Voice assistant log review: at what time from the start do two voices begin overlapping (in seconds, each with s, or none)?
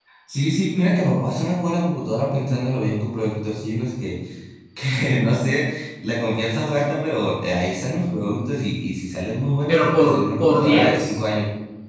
9.7 s